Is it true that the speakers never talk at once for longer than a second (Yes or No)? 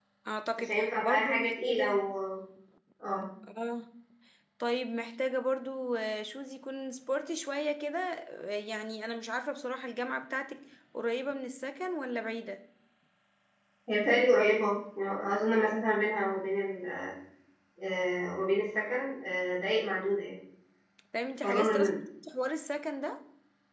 No